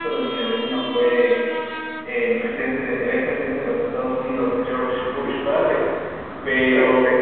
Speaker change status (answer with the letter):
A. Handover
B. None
B